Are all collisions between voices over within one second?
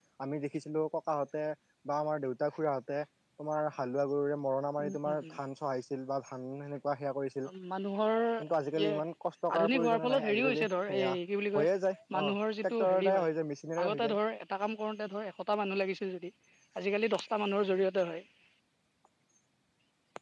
No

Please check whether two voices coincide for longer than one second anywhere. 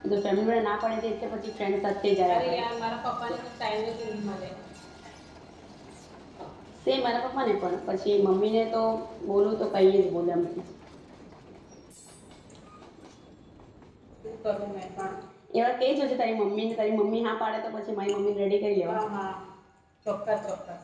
No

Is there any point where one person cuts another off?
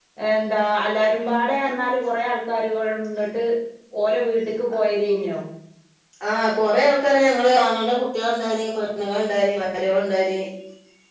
No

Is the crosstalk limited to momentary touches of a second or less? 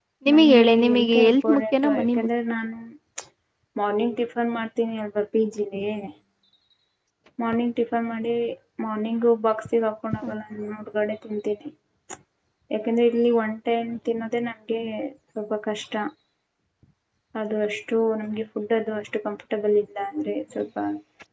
No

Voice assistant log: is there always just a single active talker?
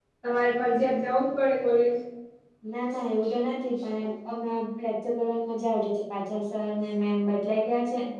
Yes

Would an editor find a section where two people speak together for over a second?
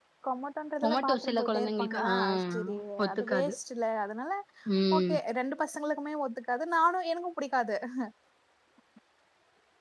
Yes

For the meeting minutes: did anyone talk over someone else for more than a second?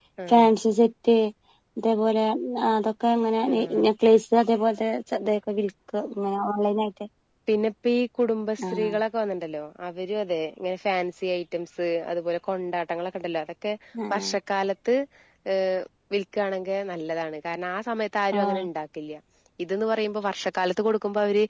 No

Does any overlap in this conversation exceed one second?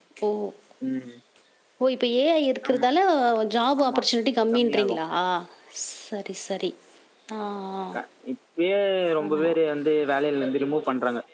No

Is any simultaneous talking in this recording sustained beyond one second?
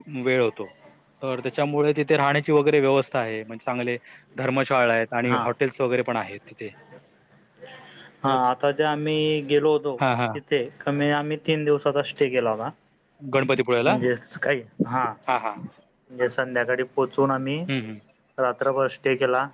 No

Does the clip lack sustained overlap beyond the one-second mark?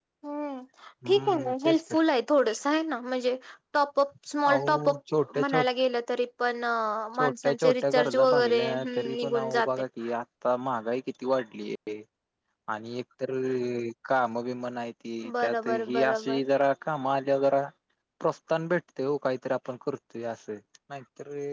No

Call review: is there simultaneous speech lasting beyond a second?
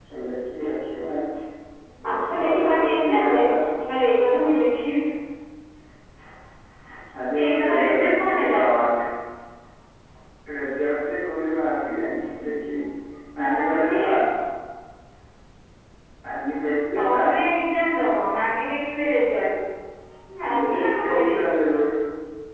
Yes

